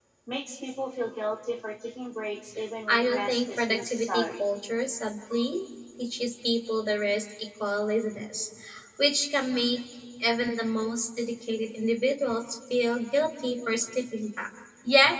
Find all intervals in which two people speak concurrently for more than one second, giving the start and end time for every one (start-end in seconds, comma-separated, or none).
2.9-4.4